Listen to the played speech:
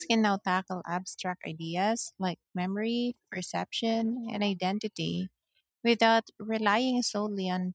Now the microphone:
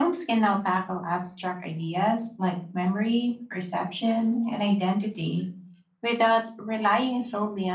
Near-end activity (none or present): none